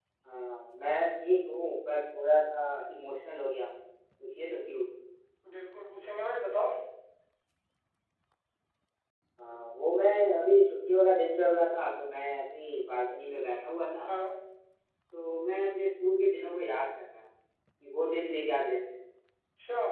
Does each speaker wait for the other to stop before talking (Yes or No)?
Yes